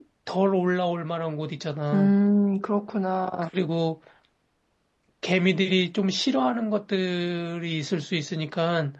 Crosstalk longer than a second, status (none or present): none